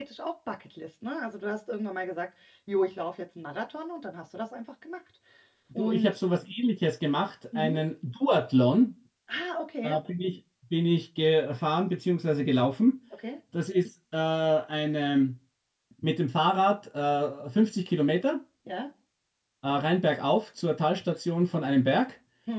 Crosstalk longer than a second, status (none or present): none